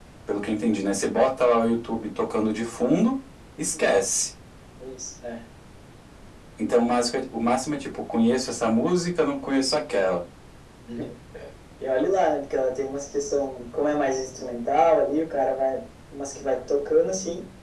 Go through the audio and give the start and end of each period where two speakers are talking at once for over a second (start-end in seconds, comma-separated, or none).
none